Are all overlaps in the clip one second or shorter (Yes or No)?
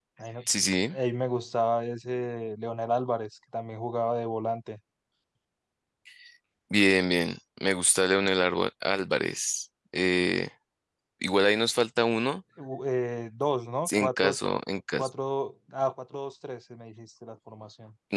Yes